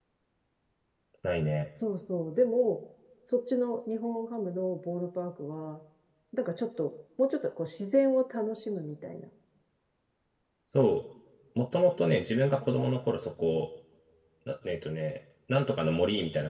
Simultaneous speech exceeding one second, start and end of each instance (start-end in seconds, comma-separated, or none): none